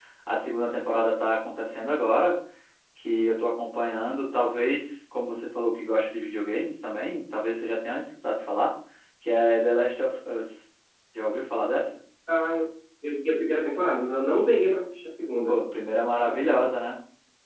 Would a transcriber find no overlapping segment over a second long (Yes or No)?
Yes